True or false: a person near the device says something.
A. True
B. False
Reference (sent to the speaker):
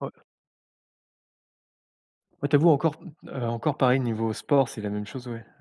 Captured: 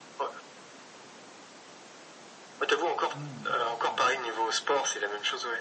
A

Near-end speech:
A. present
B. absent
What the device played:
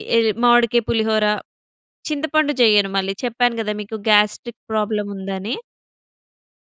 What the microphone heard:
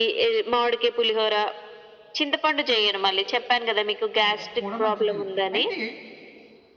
A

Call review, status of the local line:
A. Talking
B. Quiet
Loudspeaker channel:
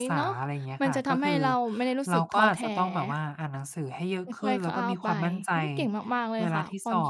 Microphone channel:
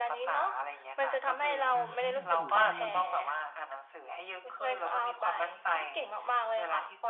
A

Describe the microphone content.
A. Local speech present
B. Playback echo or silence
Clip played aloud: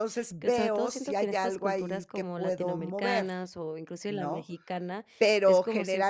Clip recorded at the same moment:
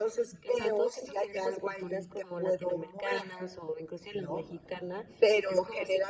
B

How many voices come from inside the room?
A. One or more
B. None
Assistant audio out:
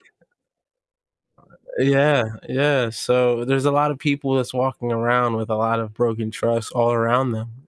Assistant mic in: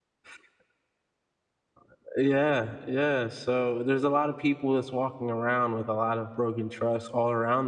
B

